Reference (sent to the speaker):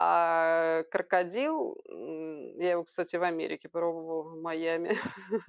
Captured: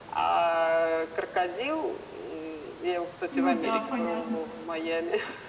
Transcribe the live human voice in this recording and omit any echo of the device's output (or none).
Ну да, понятно.